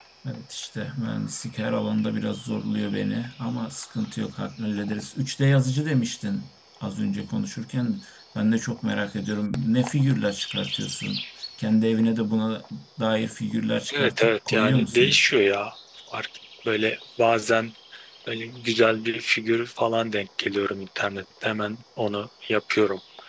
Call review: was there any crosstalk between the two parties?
Yes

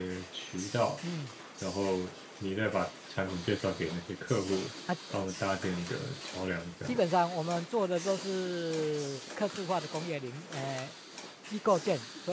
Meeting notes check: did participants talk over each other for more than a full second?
No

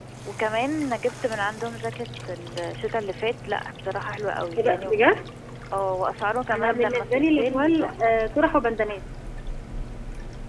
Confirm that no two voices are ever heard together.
No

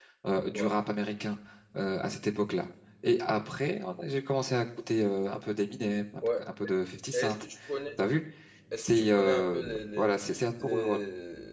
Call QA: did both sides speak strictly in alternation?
No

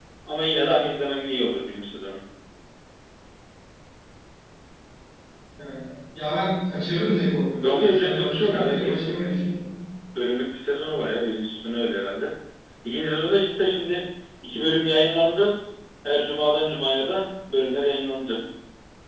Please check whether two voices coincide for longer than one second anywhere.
Yes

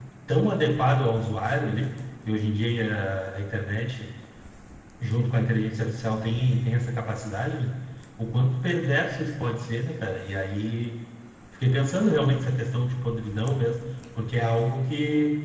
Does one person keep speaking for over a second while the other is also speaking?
No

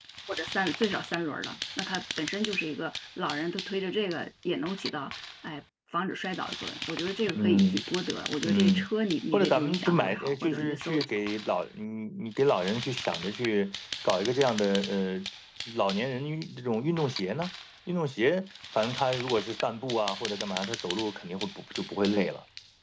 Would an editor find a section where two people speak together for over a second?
Yes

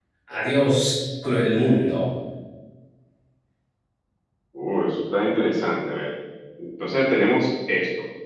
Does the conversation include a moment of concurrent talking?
No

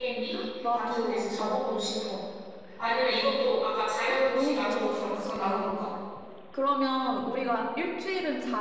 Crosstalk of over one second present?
Yes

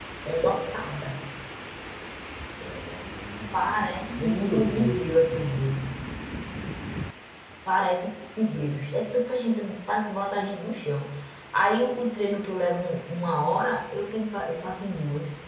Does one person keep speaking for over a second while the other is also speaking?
Yes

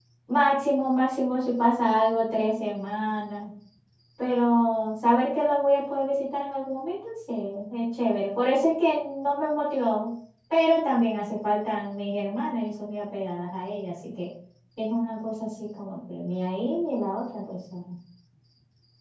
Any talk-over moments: No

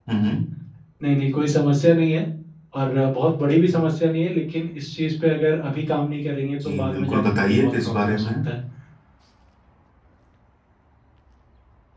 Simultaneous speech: Yes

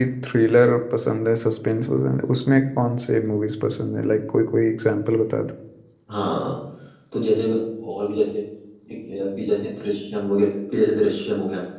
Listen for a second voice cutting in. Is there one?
No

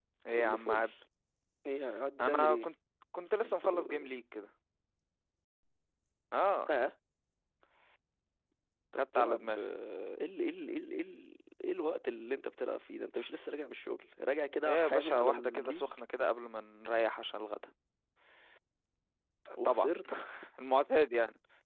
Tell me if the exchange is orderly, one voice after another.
No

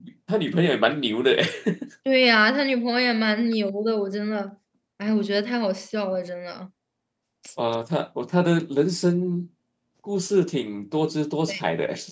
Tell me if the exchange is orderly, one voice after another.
Yes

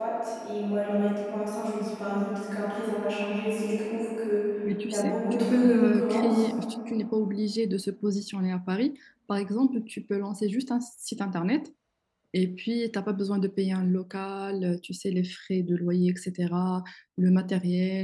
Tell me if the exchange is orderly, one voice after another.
No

